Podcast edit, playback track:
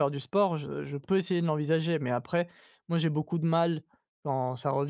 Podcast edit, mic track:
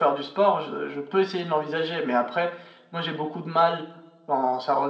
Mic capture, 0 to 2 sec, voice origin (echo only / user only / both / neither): echo only